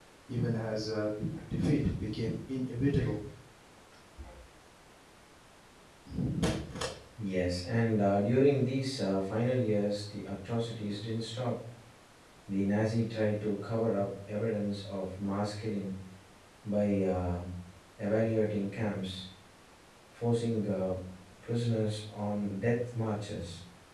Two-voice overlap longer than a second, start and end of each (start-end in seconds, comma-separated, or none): none